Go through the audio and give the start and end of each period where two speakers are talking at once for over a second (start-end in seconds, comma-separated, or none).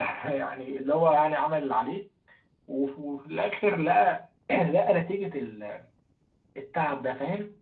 none